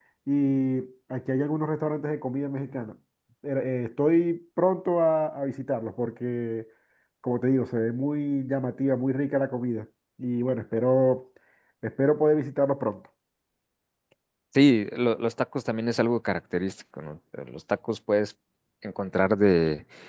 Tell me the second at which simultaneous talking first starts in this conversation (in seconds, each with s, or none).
none